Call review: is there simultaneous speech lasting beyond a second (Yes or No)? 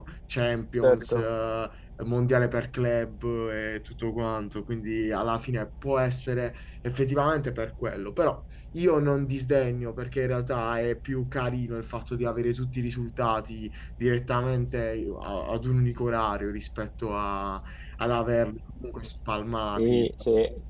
No